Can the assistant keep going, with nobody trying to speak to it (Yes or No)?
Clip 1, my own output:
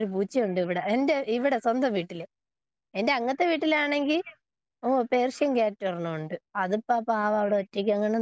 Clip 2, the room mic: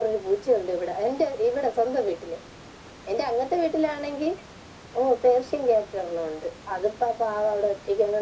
Yes